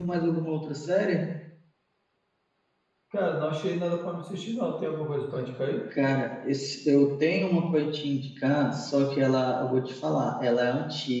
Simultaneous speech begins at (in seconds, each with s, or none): none